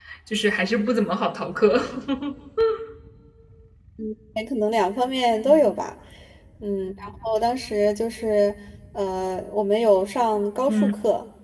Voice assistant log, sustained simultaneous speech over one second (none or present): none